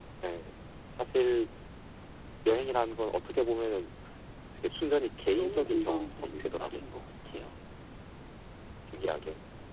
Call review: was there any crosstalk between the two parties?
Yes, from 5.4 s

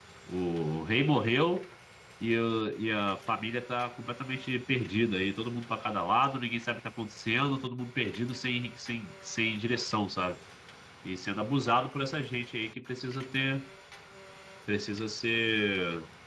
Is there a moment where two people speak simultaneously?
No

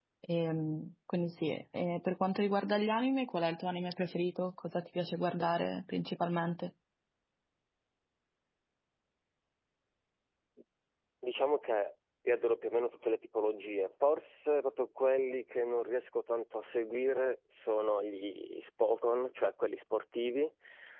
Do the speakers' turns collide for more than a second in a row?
No

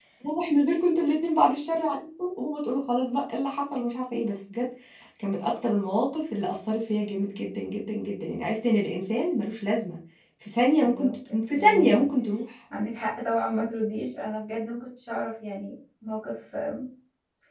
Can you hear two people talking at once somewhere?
Yes, from 10.8 s

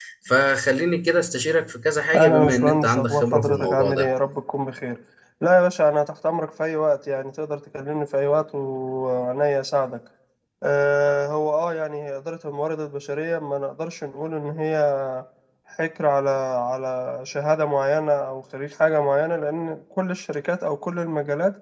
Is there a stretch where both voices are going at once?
Yes, from 2.1 s

